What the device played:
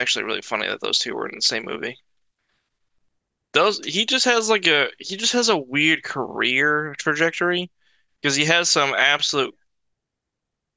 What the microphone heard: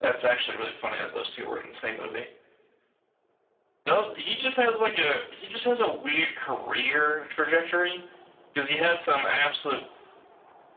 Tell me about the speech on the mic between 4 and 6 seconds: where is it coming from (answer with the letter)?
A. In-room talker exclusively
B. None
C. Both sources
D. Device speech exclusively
D